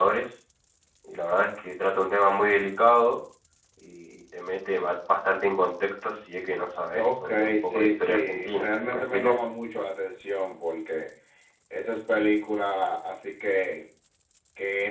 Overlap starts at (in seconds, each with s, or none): 6.9 s